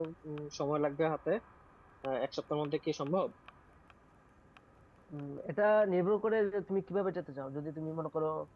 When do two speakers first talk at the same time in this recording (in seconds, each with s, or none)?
none